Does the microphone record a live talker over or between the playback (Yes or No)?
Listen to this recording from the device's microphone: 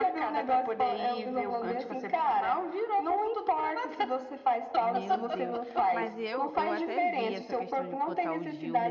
Yes